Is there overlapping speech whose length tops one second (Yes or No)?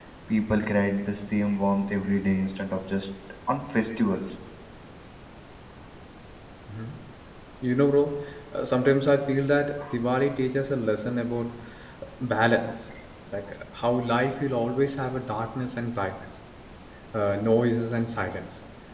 No